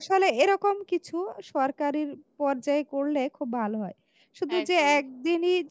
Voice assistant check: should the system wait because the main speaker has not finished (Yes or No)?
Yes